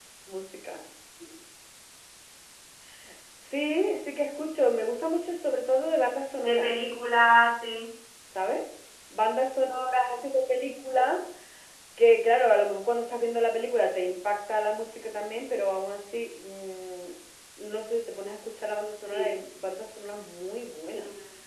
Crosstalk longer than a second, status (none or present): none